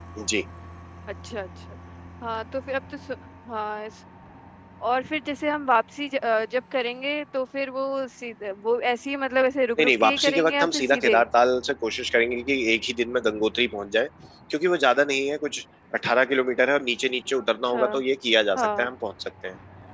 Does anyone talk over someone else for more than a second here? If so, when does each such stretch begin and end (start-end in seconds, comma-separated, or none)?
9.8-11.2